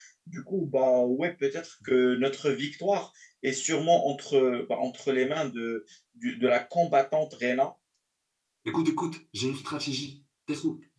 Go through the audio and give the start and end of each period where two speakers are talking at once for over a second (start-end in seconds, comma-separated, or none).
none